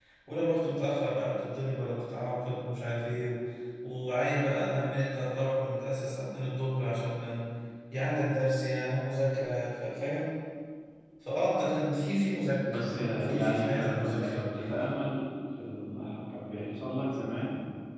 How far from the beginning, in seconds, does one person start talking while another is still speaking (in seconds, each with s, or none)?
12.6 s